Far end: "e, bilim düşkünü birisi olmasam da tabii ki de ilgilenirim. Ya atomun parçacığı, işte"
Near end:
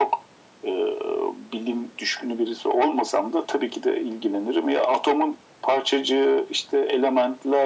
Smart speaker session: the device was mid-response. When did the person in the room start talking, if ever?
none

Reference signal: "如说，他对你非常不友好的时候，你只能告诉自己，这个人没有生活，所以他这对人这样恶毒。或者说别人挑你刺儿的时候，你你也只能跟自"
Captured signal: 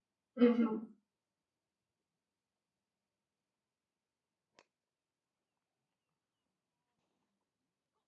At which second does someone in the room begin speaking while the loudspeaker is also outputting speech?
0 s

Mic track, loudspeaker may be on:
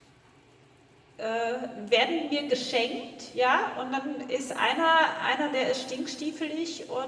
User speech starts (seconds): 1 s

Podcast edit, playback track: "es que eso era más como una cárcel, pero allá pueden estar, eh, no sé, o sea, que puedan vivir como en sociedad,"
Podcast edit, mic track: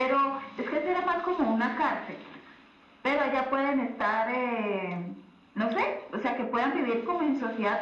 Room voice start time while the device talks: none

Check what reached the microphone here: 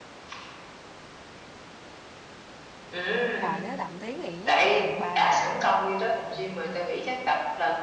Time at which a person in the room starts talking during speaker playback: 3 s

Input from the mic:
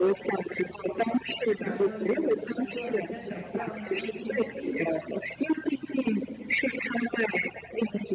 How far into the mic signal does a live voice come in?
2 s

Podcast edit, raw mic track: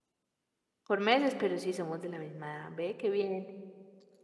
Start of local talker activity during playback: 1 s

